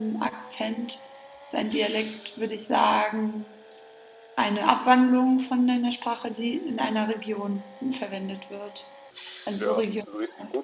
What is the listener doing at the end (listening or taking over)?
taking over